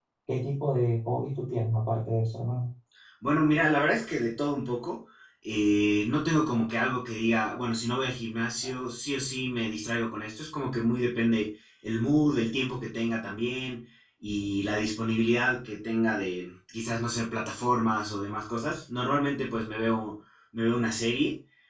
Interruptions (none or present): none